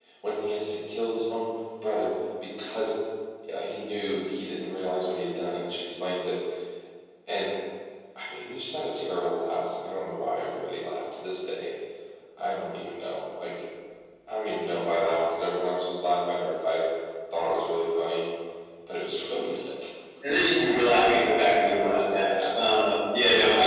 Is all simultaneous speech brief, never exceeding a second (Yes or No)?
No